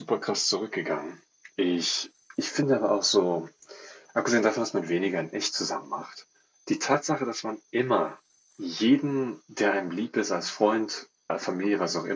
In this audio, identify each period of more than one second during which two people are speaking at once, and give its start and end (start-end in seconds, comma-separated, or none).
none